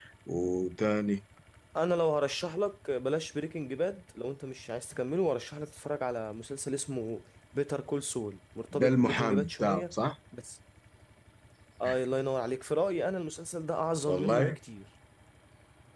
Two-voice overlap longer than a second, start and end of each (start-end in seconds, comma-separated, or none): 8.7-9.9